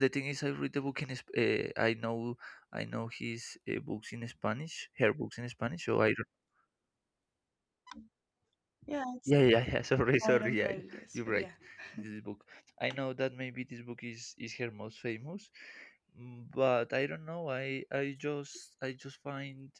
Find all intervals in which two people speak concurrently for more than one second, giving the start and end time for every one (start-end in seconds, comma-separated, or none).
10.2-11.4